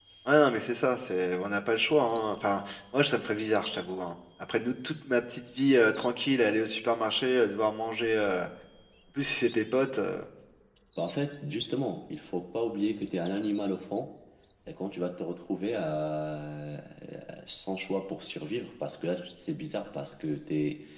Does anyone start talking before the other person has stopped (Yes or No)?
No